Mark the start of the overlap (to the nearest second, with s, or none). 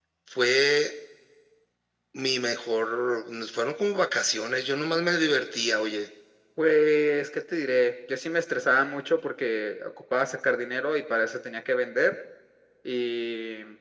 none